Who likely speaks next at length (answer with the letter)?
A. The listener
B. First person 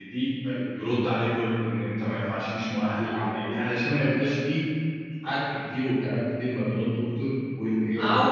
A